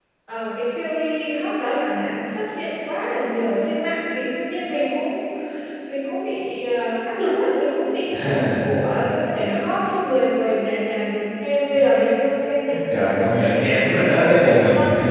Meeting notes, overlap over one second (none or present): present